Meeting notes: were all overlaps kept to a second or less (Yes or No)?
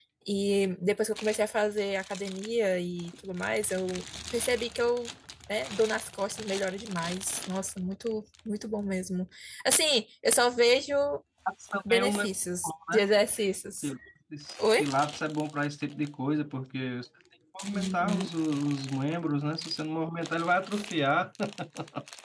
Yes